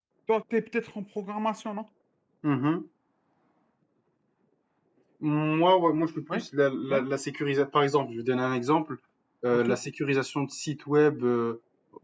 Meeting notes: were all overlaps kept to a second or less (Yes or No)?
Yes